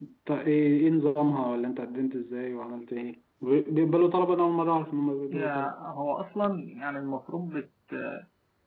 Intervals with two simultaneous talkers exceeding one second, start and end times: none

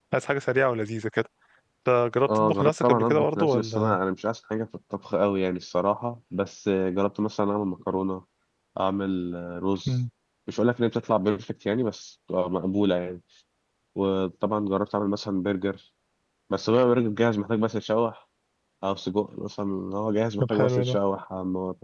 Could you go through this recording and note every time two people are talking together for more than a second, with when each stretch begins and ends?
2.4-4.0

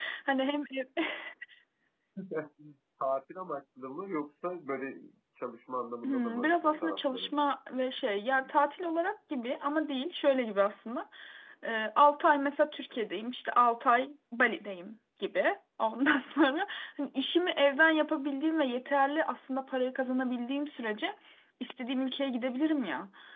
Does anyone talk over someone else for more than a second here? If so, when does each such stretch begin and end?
6.0-7.3

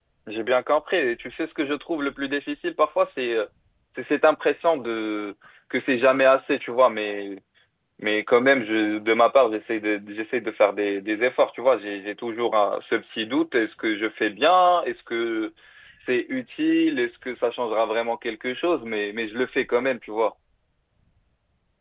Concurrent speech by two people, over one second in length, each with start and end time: none

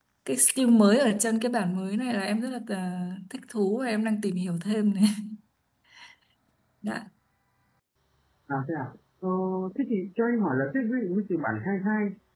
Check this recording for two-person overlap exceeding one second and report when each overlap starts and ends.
none

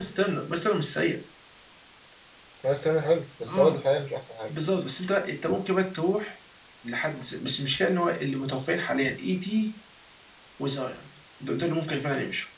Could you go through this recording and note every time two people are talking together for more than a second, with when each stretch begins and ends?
none

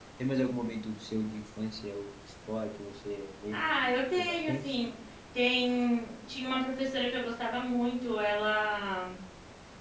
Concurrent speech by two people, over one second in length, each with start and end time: 3.5-4.8

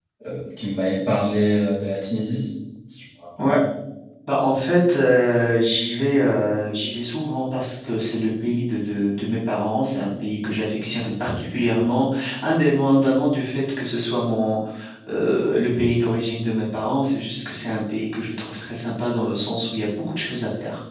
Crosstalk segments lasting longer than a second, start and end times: none

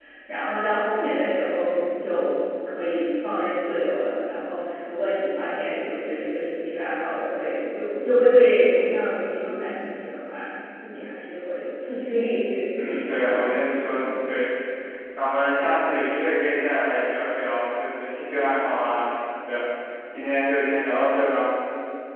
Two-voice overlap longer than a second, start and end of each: 12.8-14.0

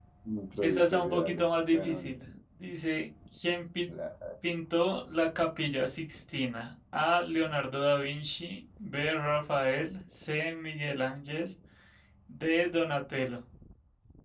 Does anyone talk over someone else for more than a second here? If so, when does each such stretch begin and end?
0.6-2.1

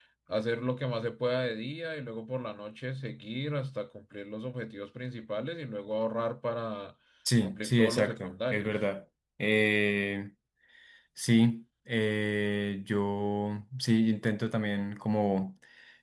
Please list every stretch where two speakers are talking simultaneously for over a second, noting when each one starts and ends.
7.4-8.8

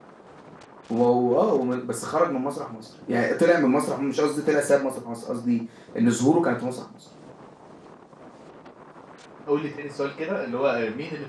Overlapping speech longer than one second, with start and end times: none

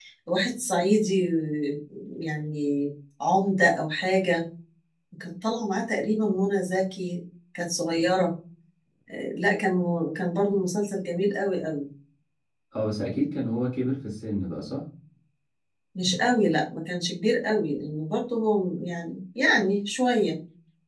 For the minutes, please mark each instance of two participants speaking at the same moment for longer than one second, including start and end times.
none

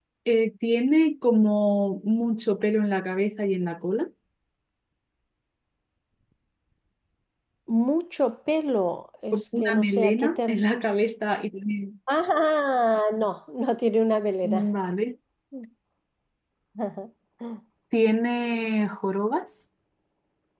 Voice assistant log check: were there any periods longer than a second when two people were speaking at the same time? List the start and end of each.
9.3-10.6

